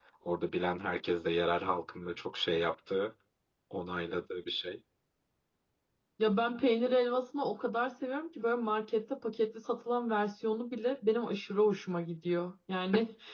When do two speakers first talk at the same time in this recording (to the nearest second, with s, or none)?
none